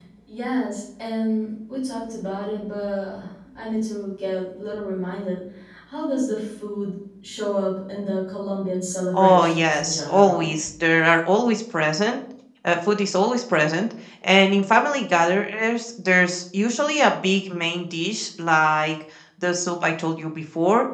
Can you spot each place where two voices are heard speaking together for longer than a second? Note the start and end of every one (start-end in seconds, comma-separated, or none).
9.1-10.5